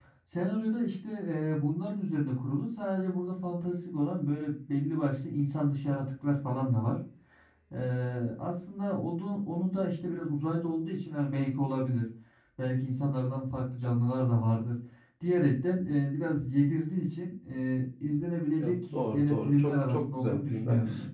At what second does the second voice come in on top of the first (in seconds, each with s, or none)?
18.6 s